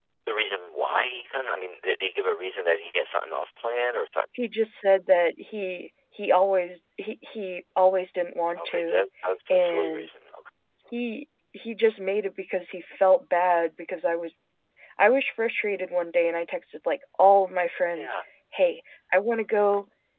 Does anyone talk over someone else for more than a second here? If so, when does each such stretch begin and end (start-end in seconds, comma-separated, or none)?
none